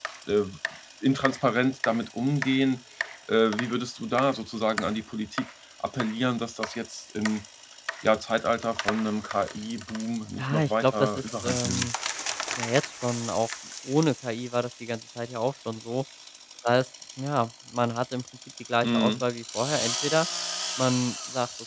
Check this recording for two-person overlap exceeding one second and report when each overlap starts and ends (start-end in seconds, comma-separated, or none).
10.4-11.9